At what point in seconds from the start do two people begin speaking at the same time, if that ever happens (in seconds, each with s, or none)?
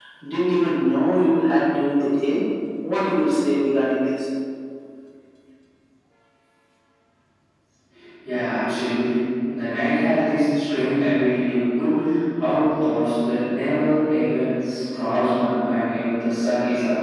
none